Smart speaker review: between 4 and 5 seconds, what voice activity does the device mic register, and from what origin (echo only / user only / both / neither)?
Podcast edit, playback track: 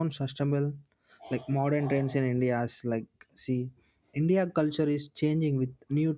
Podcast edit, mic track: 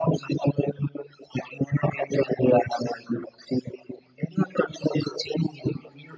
echo only